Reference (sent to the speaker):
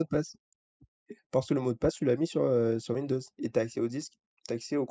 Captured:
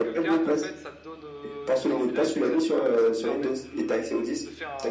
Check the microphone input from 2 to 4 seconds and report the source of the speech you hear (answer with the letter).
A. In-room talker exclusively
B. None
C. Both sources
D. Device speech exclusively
C